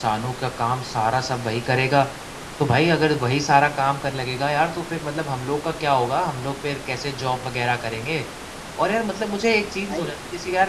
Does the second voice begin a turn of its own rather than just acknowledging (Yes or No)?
No